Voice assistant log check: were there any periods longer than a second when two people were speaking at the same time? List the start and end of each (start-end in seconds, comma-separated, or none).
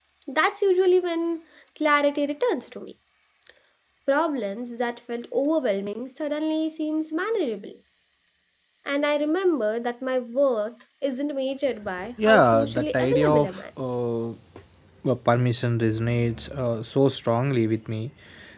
12.3-13.6